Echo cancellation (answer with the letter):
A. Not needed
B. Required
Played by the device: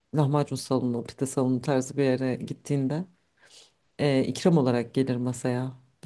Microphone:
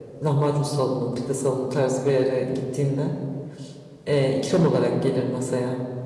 B